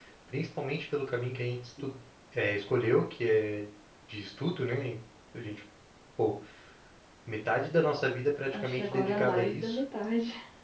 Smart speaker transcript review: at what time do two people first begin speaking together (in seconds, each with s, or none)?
8.5 s